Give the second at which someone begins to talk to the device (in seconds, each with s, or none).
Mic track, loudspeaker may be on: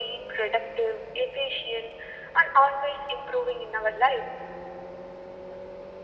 none